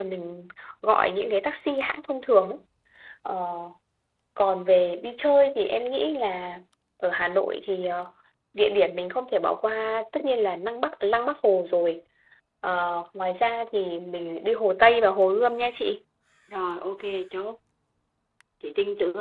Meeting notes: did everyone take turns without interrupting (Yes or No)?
Yes